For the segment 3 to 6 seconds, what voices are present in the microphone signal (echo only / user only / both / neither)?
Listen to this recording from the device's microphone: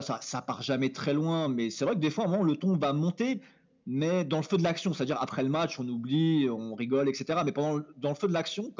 echo only